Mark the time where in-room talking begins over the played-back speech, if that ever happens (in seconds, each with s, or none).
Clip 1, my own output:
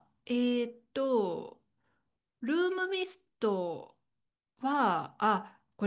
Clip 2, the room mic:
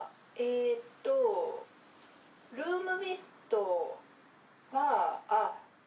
none